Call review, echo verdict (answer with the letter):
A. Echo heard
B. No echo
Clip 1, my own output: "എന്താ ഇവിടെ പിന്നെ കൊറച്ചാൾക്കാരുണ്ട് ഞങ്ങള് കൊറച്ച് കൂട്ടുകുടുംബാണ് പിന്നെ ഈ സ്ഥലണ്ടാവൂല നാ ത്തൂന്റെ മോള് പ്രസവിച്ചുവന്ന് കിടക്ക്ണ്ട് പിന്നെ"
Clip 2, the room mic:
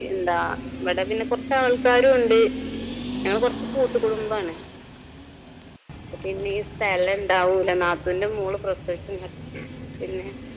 A